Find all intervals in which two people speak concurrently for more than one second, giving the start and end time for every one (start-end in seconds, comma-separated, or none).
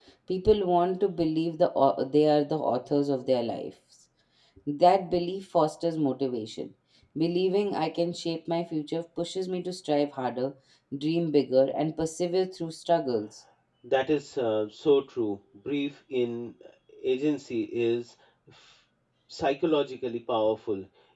none